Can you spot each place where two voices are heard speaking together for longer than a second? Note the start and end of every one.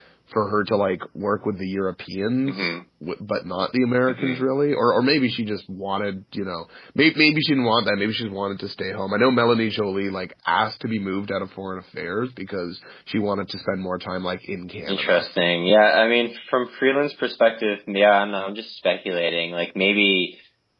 none

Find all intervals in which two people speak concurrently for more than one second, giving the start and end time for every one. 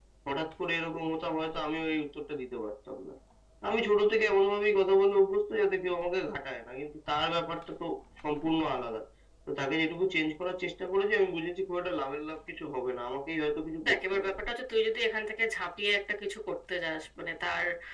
none

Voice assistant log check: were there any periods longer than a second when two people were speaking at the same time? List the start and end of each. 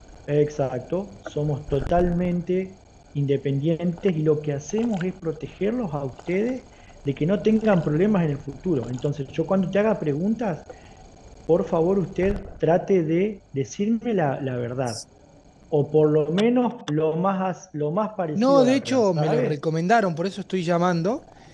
18.3-19.6

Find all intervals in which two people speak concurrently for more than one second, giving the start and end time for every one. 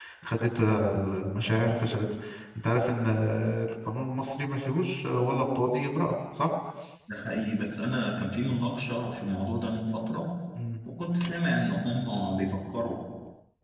none

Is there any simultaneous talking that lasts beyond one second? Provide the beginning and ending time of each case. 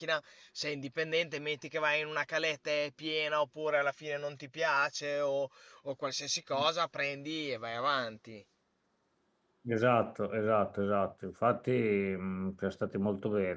none

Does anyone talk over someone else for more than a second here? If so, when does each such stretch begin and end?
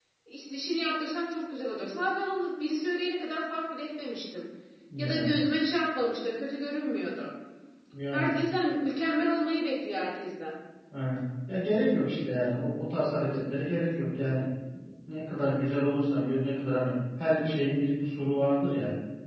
none

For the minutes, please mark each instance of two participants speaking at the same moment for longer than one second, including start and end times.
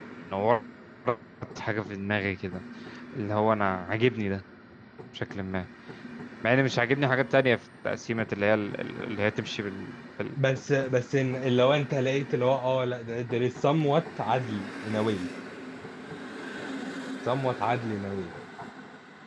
none

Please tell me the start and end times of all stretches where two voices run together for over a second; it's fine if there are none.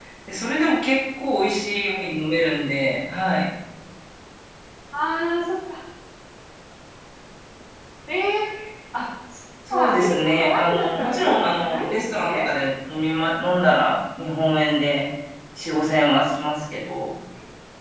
9.7-12.5

